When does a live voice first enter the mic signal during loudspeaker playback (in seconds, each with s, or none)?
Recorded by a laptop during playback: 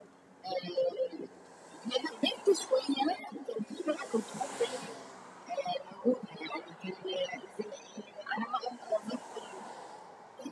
none